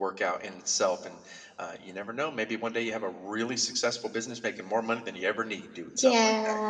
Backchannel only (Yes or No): No